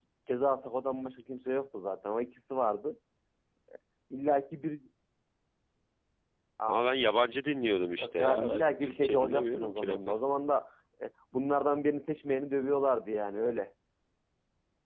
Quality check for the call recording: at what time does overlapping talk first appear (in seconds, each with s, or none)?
8.0 s